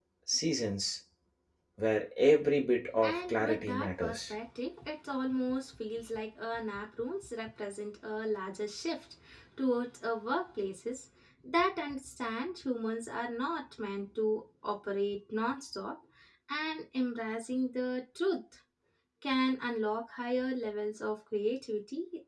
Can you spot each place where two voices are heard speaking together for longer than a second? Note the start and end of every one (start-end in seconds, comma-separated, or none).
3.0-4.3